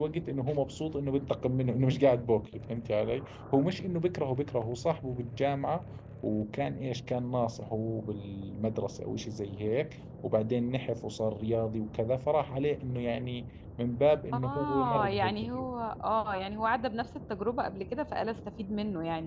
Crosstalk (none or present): present